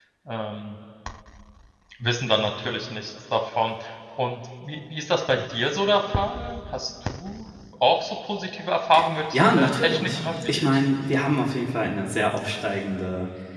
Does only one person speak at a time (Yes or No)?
No